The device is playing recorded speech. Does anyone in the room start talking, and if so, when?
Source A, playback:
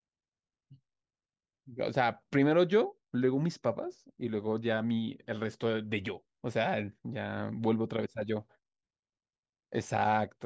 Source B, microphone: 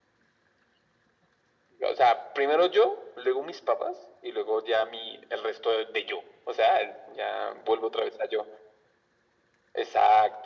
none

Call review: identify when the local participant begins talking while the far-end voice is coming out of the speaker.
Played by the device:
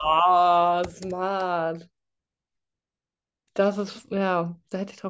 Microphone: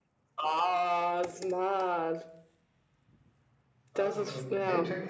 3.9 s

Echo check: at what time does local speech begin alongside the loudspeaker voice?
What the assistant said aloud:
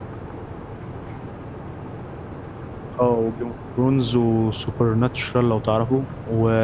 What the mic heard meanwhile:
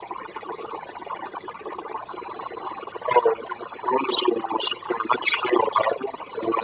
none

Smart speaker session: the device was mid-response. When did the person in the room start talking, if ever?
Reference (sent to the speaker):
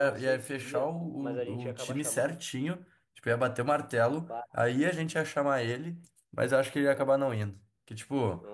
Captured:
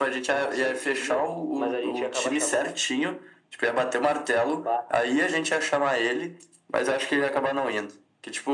none

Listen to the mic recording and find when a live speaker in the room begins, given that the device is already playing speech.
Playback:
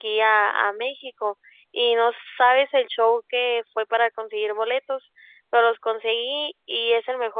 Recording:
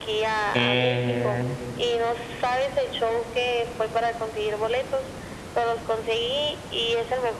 0.5 s

